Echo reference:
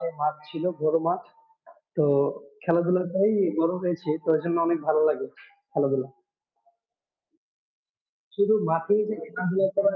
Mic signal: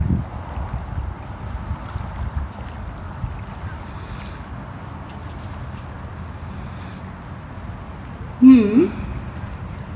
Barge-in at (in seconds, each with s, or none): 8.4 s